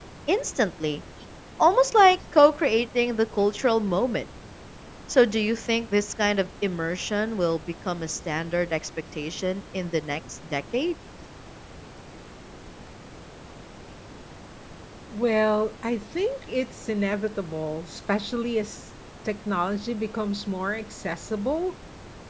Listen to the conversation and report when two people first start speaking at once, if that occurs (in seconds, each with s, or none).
none